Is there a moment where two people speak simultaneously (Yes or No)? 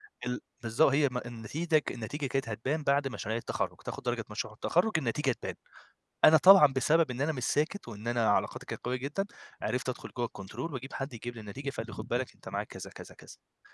No